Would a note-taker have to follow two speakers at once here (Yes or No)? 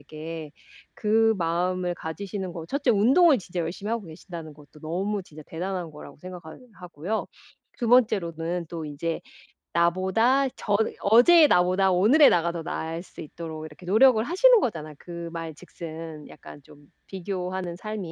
No